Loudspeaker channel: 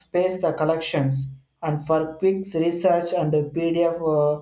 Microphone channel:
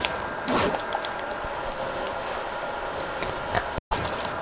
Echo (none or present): none